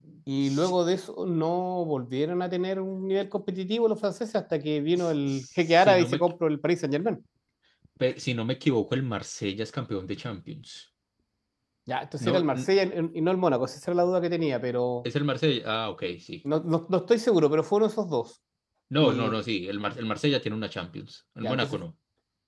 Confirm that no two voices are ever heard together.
No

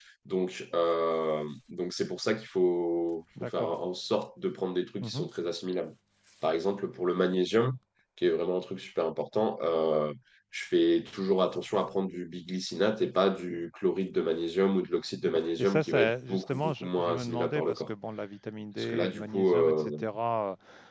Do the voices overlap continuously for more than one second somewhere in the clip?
Yes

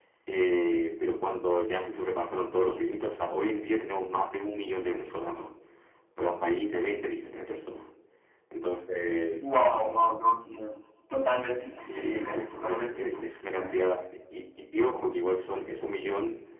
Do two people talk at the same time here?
Yes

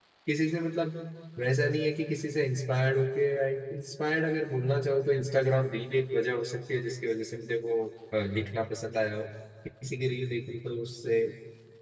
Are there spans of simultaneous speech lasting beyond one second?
No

